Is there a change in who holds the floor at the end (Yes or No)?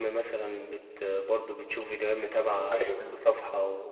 No